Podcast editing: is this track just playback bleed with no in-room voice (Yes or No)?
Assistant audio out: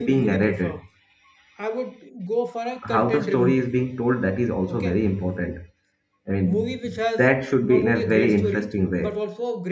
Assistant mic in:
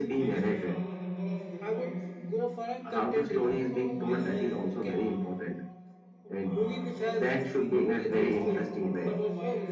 No